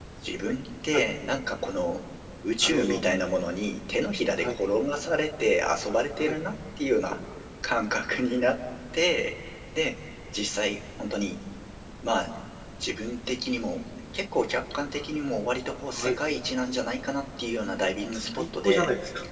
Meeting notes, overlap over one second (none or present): none